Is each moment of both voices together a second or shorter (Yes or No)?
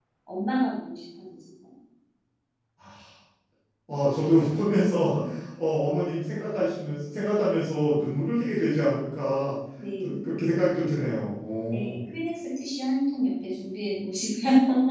Yes